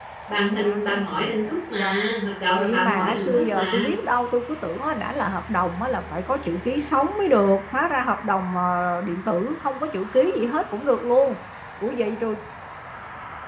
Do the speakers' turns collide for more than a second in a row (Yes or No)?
Yes